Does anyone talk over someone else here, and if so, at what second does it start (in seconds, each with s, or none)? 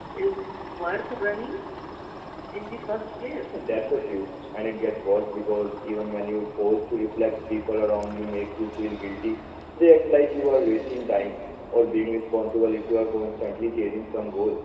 none